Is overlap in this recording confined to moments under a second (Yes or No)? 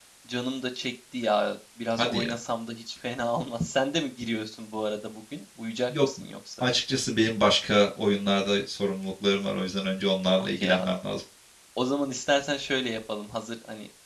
Yes